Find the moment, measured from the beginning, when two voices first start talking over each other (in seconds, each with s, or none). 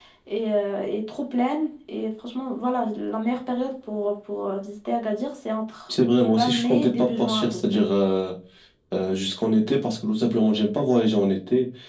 6.4 s